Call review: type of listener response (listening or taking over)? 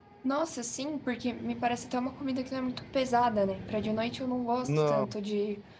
listening